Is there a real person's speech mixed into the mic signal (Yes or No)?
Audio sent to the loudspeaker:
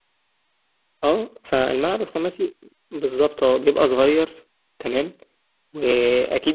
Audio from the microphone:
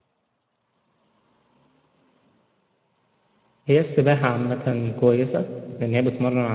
Yes